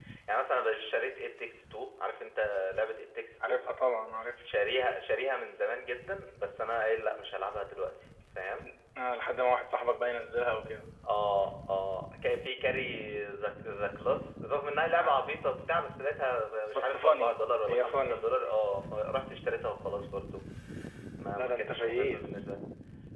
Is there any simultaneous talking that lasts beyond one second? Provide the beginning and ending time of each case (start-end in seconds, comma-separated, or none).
16.7-18.2, 21.4-22.6